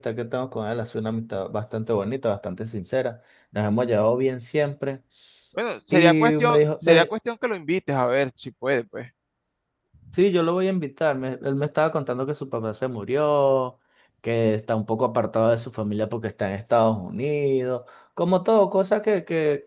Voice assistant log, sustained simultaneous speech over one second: present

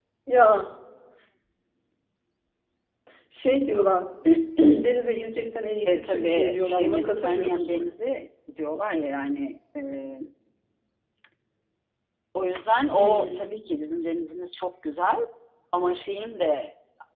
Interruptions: present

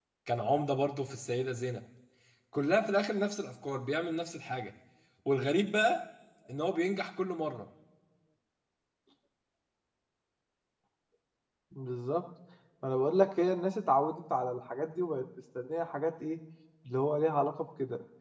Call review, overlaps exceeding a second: none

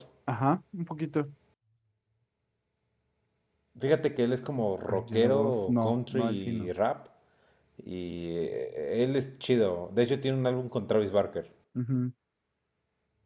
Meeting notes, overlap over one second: present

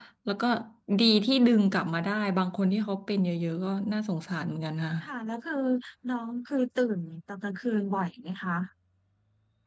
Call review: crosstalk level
none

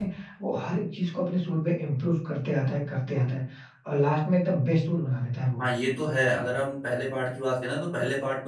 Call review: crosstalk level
none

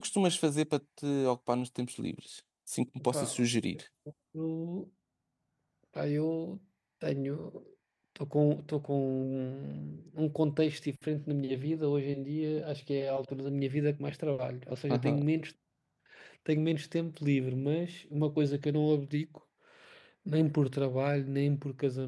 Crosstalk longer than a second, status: none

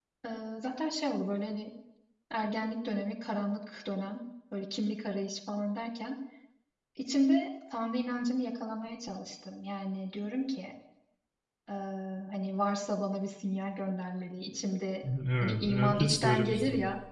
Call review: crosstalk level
present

